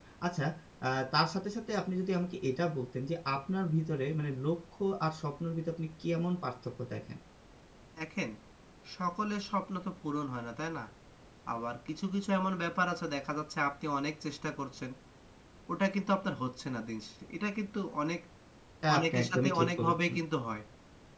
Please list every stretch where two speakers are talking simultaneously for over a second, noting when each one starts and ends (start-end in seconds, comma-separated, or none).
18.9-20.1